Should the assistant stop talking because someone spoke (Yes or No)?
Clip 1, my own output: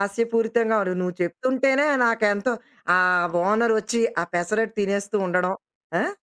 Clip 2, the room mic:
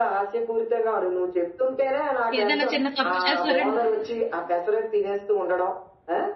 Yes